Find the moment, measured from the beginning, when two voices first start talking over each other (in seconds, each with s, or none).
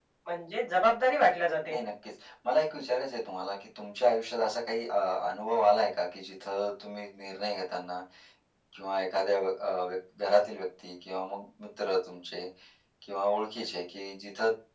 none